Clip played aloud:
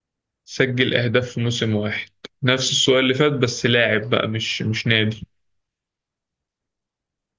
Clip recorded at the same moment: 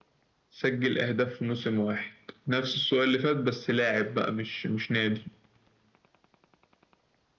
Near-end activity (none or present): none